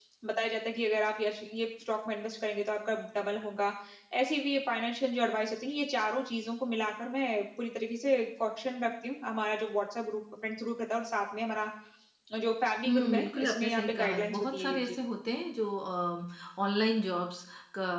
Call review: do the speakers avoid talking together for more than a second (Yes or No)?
No